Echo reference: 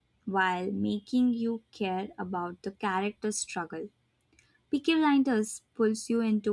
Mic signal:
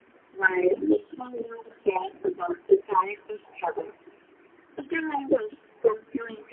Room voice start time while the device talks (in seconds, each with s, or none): none